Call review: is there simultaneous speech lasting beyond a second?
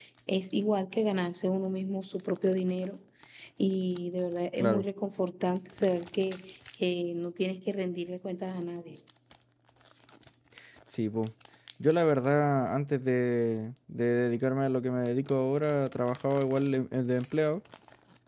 No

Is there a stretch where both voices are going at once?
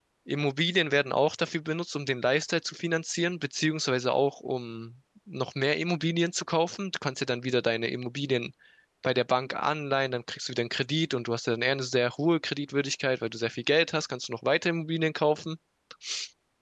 No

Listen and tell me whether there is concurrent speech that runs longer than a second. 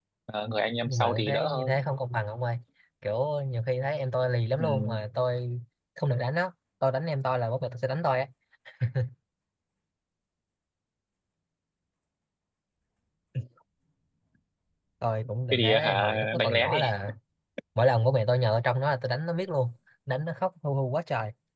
Yes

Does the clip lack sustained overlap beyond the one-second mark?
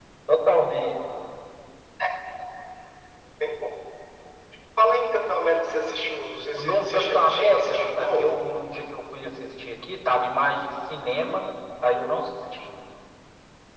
No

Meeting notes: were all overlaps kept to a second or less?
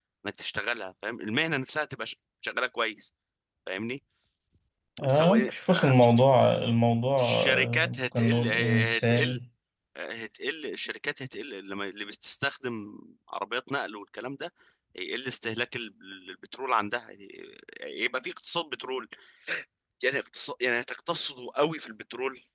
No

